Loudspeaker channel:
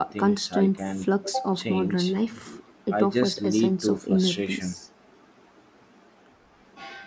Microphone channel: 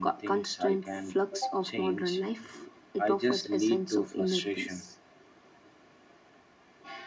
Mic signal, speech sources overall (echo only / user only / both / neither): echo only